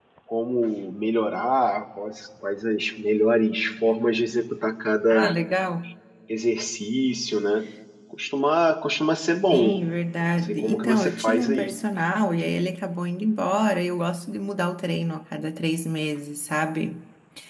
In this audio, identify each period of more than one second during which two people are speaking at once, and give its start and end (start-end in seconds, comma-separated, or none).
10.2-11.8